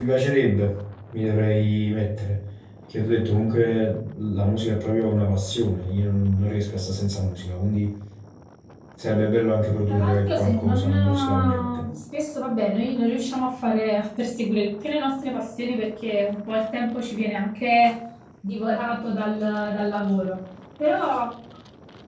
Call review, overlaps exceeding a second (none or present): present